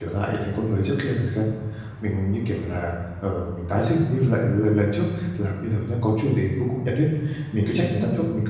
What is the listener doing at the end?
listening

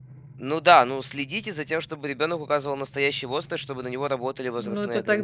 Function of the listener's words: taking over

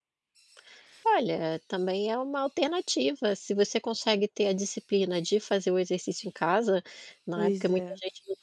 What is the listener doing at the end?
listening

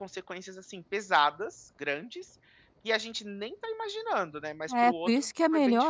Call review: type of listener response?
taking over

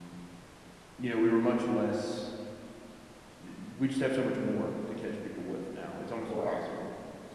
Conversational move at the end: listening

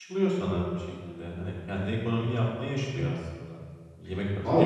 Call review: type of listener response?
taking over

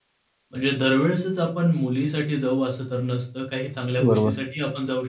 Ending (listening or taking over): listening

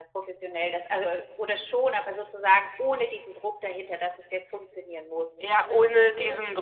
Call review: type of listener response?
taking over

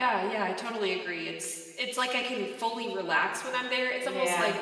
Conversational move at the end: listening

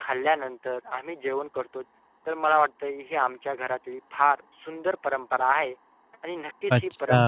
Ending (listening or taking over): listening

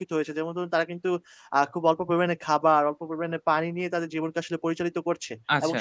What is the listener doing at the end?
taking over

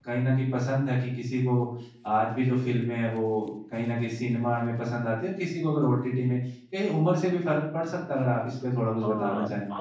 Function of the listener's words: taking over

